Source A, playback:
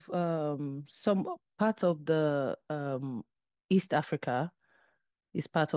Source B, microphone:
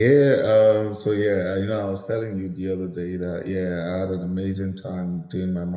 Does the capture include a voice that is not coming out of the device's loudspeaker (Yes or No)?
Yes